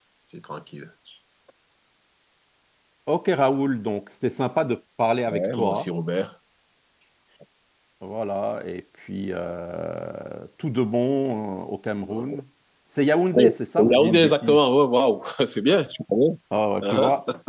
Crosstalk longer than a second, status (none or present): present